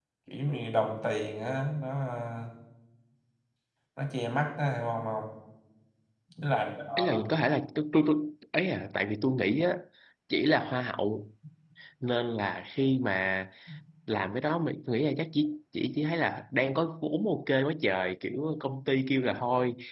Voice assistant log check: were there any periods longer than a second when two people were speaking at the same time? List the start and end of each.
none

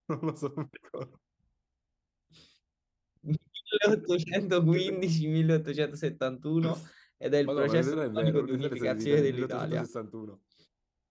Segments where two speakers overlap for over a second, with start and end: 7.5-9.9

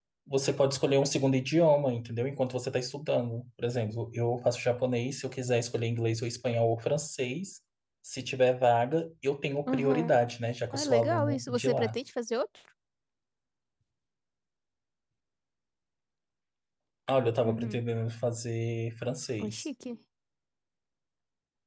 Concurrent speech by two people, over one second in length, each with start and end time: 10.7-12.0

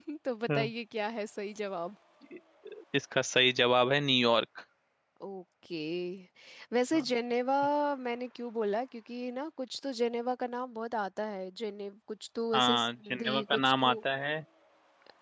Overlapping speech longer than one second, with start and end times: 12.6-14.0

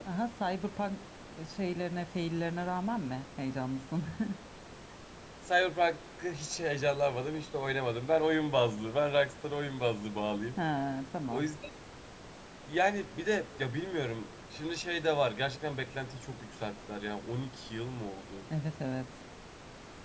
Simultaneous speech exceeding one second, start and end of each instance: none

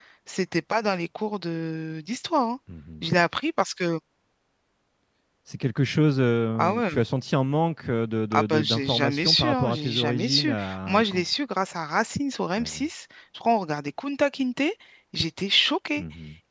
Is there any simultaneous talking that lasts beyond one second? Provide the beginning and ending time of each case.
8.3-11.2

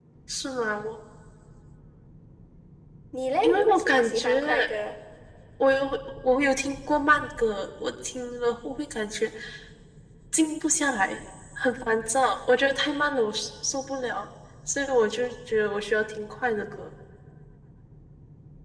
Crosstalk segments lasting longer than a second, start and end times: 3.4-4.7

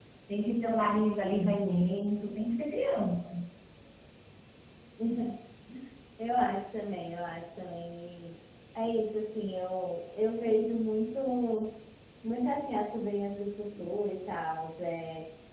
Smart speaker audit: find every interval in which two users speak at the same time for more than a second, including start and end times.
none

